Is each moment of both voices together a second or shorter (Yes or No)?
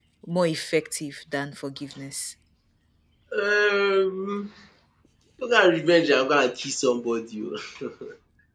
Yes